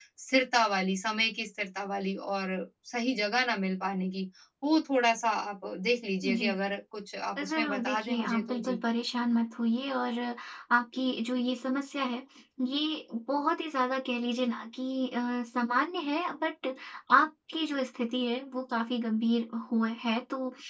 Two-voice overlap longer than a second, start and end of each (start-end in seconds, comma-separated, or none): 7.5-8.8